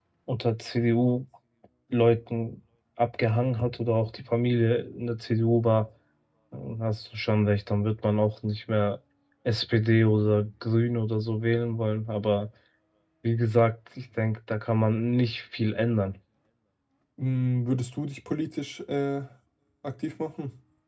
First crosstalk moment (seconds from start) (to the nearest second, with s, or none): none